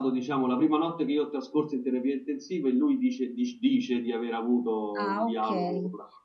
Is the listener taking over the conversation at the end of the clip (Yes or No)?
Yes